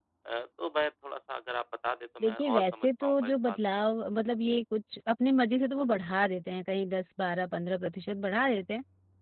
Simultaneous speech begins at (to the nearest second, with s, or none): 2 s